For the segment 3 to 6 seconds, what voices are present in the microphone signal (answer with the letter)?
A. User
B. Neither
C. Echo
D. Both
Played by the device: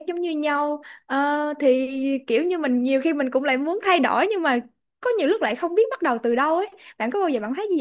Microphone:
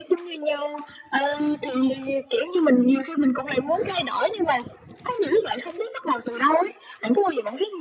C